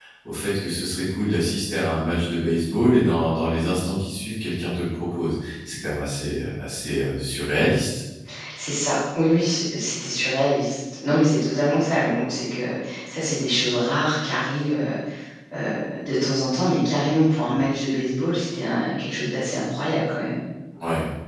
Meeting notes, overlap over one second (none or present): none